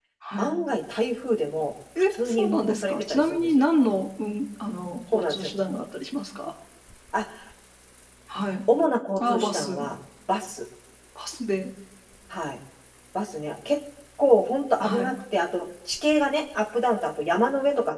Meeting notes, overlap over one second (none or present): present